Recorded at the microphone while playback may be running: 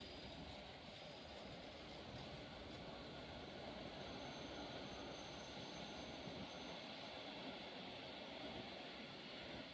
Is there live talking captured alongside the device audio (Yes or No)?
No